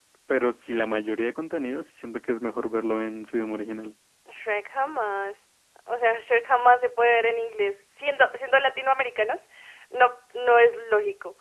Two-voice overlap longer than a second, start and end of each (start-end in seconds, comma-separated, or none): none